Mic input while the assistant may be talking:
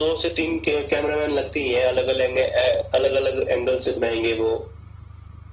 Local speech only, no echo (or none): none